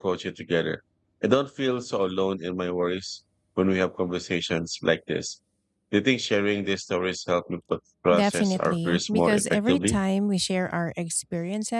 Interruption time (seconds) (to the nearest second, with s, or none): 8 s